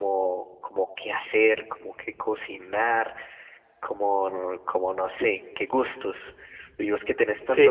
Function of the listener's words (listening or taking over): listening